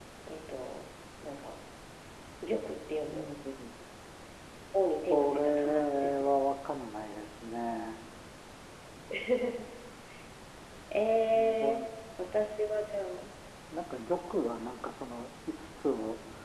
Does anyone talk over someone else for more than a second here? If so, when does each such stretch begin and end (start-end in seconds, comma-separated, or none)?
5.1-6.3